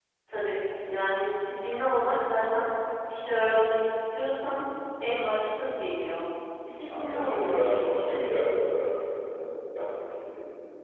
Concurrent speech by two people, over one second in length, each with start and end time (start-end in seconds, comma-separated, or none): 6.9-8.3